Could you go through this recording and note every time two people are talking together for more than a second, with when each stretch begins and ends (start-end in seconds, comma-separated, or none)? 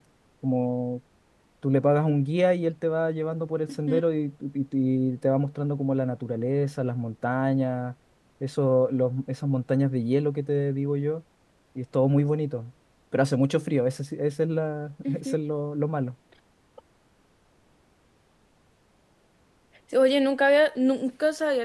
none